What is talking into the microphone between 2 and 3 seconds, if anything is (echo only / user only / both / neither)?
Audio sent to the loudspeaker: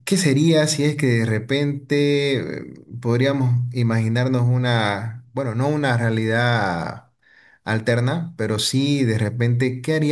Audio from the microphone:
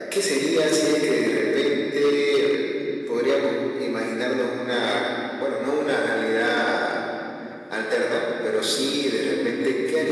echo only